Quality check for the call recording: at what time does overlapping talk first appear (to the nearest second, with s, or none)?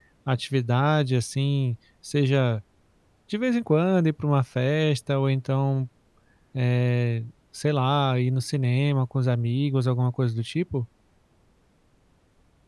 none